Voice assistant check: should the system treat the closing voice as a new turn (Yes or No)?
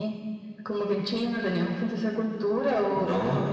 No